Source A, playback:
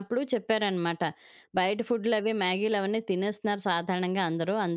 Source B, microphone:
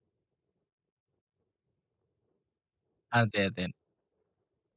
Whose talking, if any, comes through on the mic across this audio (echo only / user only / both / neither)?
user only